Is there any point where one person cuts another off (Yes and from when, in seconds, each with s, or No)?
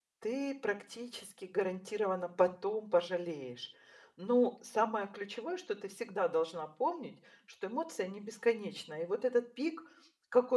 No